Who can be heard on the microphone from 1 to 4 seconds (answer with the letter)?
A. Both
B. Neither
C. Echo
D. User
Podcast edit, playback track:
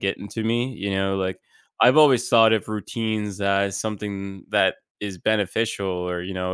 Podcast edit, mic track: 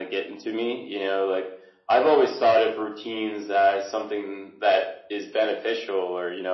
C